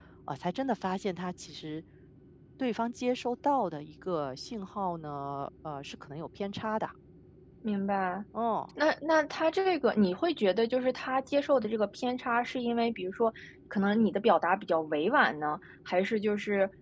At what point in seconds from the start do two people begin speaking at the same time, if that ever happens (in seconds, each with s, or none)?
none